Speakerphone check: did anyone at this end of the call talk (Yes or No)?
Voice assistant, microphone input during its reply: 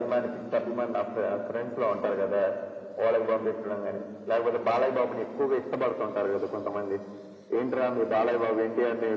No